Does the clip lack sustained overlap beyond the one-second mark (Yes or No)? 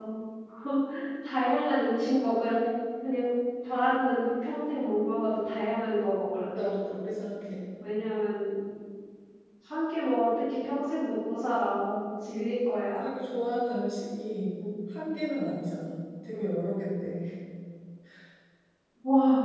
Yes